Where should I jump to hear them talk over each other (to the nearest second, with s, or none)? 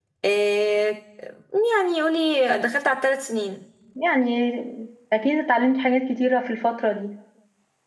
none